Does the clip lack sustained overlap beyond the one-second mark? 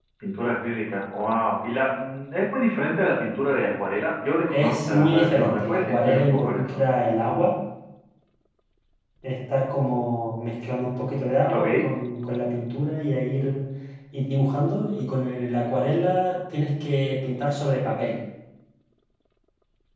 No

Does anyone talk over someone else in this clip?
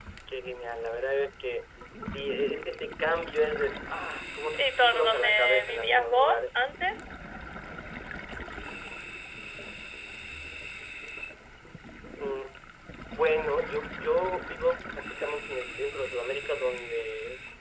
Yes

